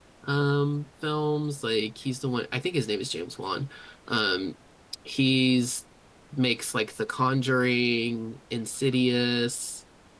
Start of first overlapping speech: none

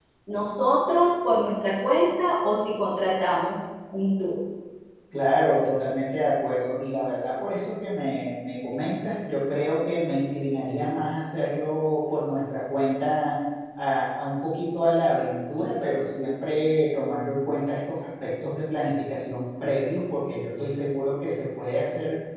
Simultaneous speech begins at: none

